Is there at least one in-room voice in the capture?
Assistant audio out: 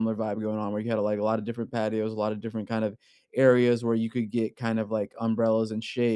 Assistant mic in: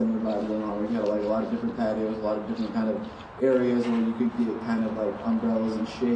No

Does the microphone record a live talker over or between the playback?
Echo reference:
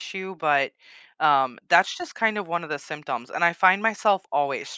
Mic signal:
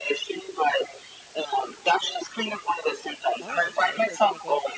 Yes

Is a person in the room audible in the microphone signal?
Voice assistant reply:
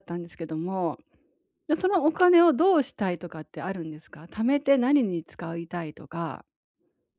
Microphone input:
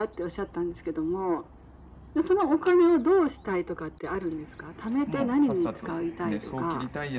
Yes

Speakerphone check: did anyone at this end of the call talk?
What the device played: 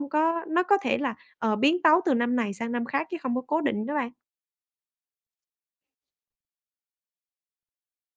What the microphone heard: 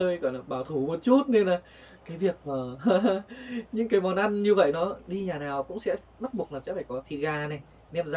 Yes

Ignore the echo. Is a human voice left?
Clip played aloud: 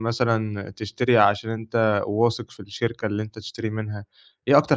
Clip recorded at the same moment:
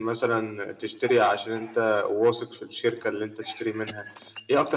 No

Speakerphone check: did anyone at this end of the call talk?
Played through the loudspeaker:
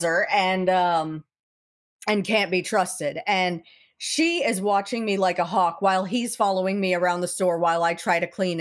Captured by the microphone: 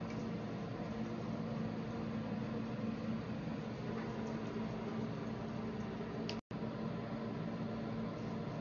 No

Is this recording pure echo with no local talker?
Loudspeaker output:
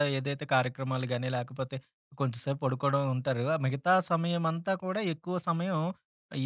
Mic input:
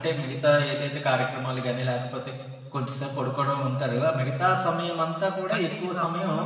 No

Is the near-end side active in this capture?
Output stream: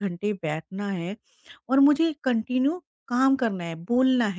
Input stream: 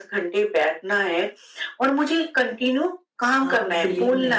Yes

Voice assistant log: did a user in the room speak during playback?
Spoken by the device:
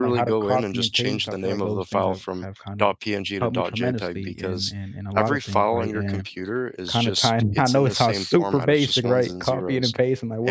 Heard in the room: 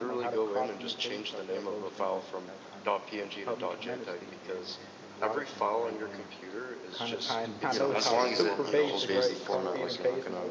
Yes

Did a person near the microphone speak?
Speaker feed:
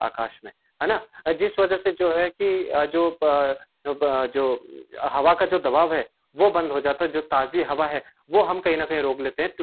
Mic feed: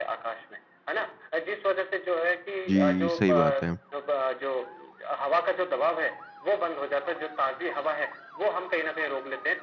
Yes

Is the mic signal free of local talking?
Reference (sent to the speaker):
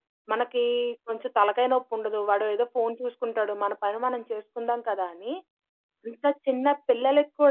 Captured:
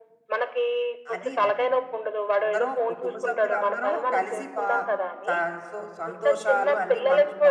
No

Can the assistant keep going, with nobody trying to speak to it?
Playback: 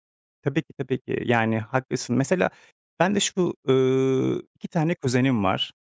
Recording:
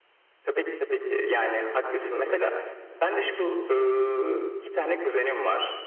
Yes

